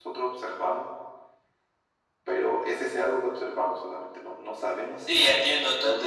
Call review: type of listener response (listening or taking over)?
taking over